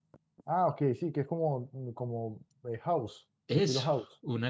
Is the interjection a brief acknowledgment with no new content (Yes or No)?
No